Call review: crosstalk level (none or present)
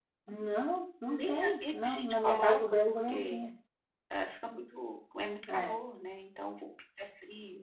present